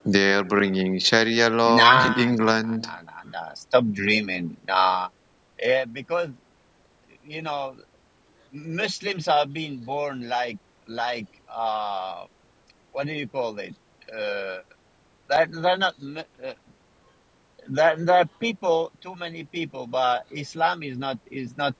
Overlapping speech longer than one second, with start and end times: 1.7-2.9

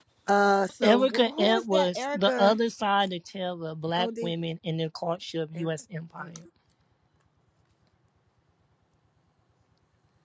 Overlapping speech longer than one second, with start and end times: 0.8-2.5

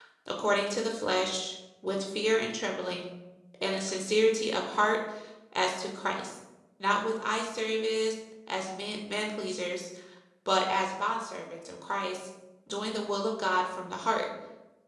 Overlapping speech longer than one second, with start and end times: none

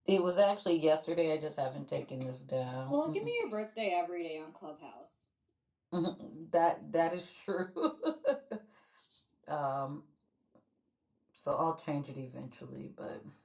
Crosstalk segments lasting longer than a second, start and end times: none

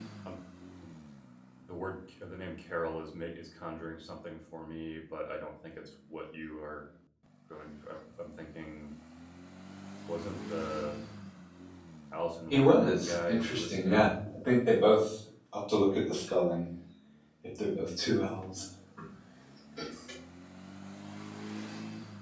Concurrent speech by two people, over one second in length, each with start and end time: 12.5-14.1

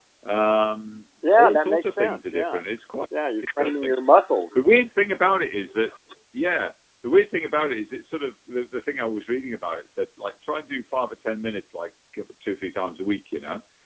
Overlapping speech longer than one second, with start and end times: 1.4-2.6

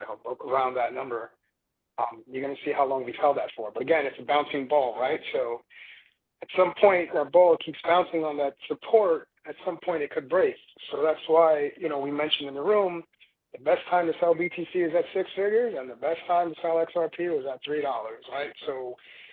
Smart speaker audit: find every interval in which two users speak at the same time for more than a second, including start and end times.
none

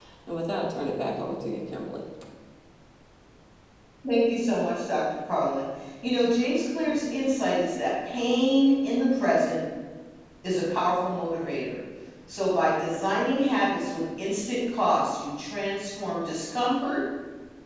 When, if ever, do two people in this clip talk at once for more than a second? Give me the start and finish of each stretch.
none

